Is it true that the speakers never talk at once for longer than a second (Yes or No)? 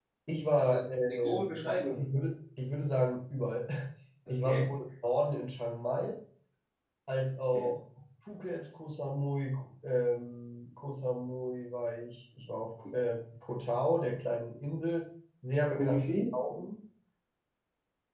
No